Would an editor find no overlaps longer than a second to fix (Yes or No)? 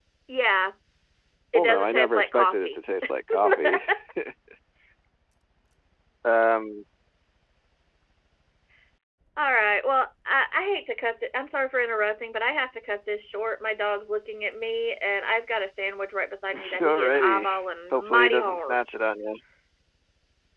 No